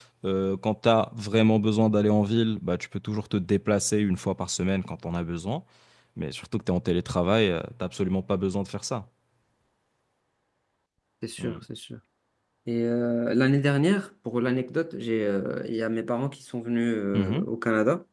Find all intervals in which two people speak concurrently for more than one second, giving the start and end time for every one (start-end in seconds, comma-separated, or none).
none